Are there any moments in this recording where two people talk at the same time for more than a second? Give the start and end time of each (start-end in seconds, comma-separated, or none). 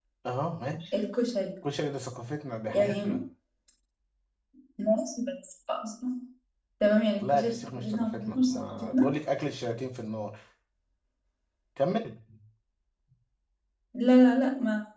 7.2-9.1